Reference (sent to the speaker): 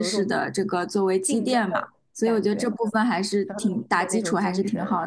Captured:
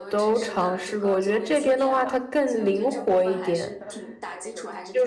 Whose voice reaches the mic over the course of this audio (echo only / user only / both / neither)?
both